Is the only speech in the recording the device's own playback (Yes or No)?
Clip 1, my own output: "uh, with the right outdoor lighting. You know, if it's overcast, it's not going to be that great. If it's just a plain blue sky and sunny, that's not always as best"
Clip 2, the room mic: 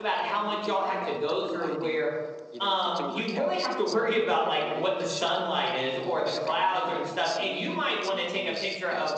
No